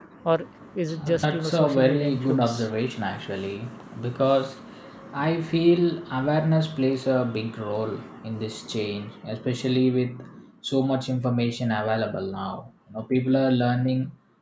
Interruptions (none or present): present